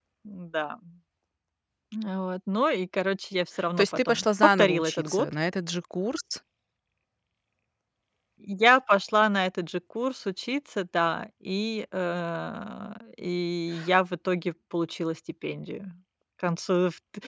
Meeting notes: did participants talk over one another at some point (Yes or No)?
Yes